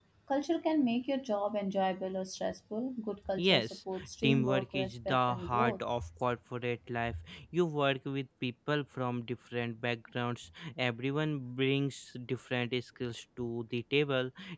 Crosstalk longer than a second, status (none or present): present